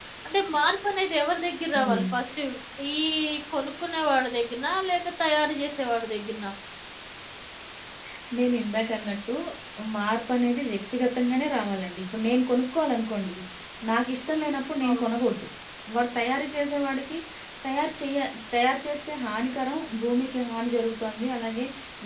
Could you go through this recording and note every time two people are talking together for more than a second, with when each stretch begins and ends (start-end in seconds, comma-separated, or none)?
none